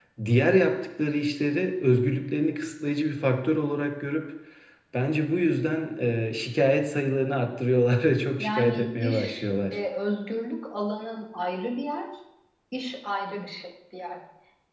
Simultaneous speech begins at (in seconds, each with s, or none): 8.4 s